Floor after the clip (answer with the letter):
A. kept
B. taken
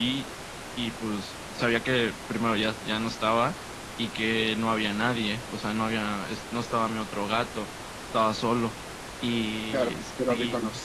B